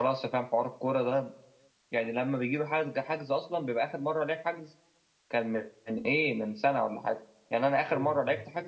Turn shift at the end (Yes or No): No